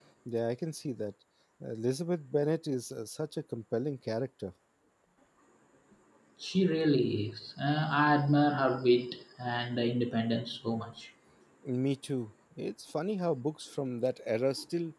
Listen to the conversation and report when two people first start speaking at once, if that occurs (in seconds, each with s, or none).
none